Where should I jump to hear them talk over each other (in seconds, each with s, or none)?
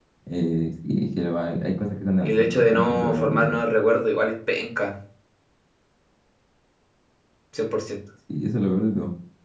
2.2 s